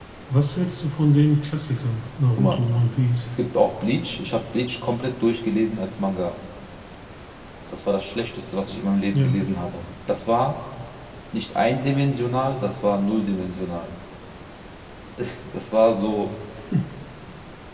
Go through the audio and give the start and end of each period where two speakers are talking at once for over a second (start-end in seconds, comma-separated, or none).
none